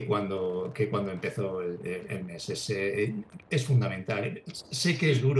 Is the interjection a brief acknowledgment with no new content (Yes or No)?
Yes